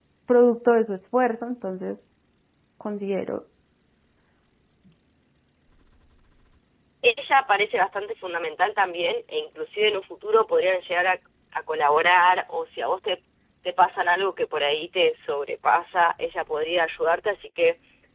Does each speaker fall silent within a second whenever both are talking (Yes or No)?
Yes